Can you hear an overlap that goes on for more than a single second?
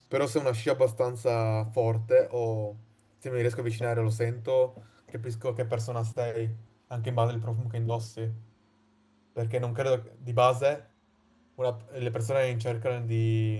No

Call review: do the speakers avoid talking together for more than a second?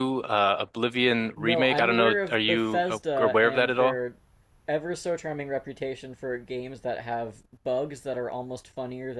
No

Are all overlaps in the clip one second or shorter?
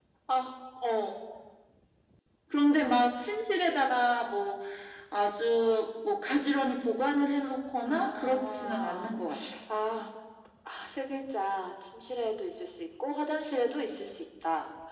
No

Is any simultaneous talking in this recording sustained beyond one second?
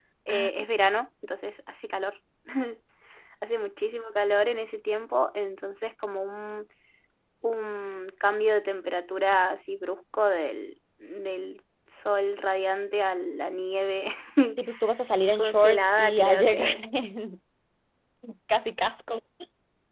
Yes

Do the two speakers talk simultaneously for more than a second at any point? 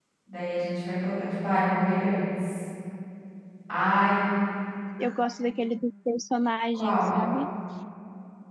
No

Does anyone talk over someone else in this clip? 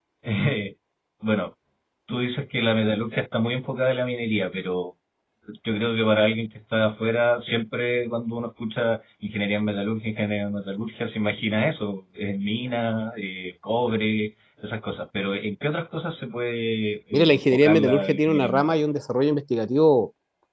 Yes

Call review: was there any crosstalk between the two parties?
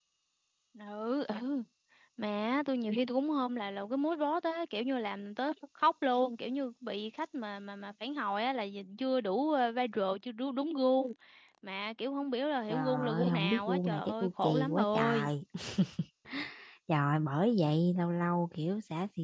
Yes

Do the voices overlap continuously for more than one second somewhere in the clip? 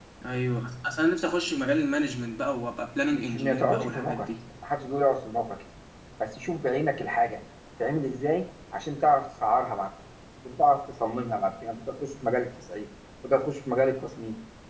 Yes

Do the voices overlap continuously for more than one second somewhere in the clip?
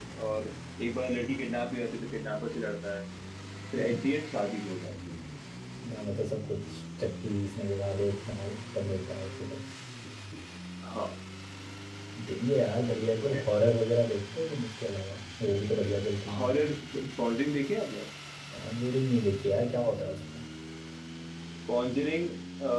No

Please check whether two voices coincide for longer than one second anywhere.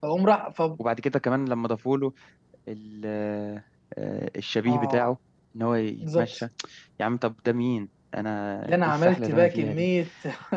Yes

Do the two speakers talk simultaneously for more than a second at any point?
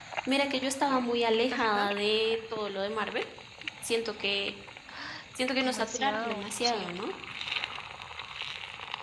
Yes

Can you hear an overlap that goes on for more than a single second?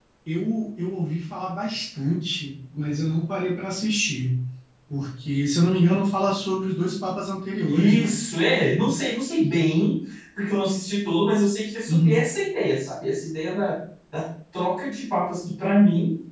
No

